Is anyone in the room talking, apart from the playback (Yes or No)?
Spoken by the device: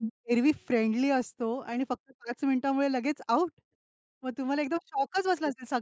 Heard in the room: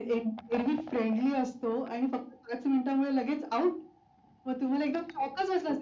No